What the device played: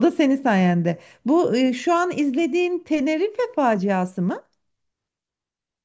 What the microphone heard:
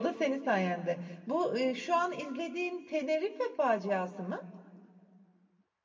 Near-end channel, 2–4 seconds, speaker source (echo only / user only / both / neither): echo only